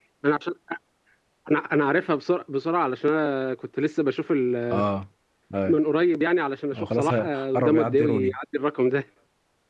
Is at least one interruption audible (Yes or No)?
Yes